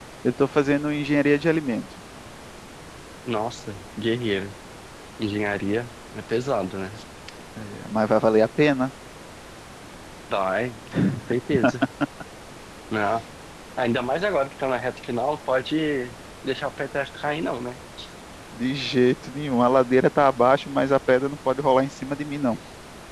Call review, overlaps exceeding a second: none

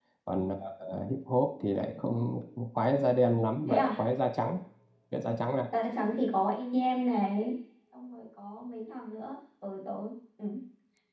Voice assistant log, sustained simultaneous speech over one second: none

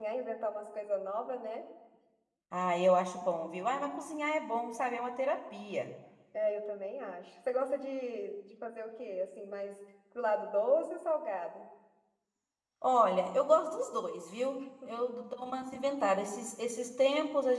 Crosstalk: none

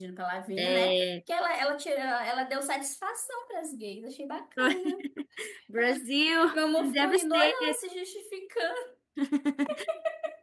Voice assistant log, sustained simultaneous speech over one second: present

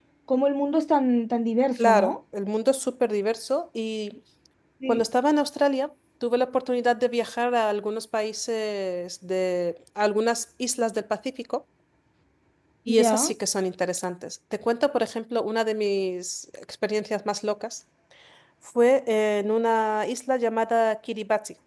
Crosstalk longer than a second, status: none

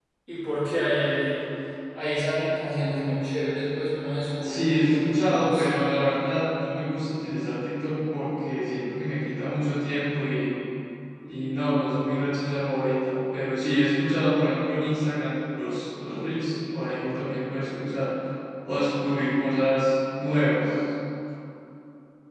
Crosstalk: present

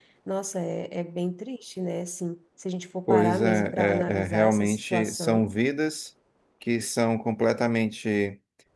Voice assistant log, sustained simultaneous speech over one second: present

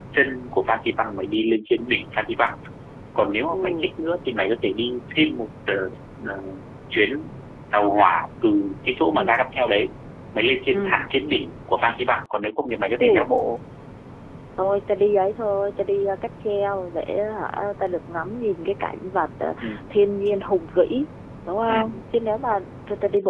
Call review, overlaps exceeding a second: none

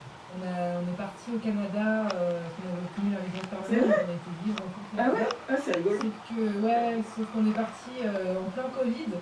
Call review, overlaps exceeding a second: none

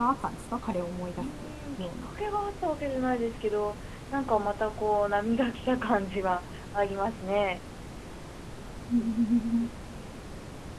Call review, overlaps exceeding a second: none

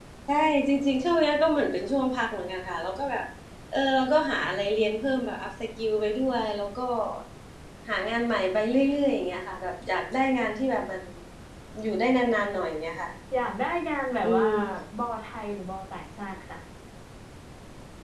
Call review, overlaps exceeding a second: none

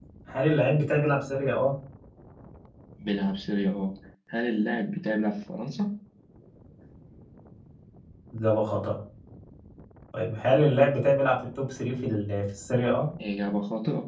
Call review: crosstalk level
none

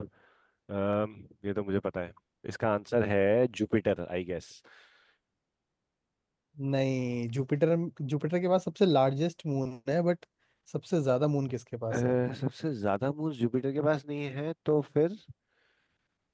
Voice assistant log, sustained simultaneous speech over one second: none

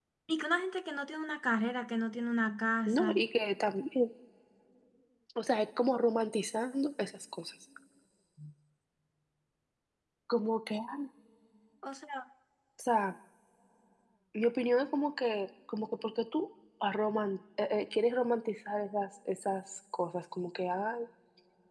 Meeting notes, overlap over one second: none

